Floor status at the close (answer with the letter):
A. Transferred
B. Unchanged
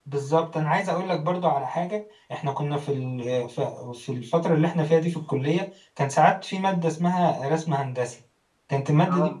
B